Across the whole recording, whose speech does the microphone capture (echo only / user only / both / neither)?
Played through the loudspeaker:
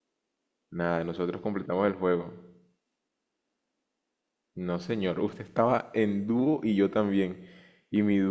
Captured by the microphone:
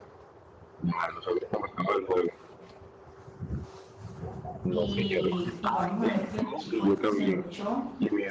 both